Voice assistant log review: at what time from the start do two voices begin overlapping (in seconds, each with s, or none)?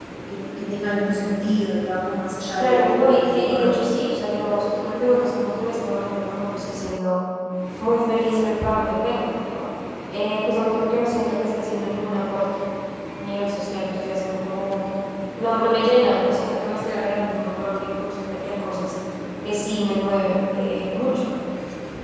2.6 s